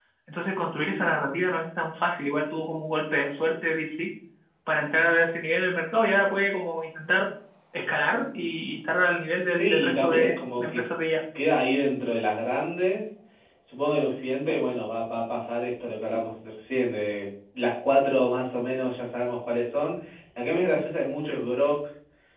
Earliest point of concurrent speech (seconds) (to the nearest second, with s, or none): 10 s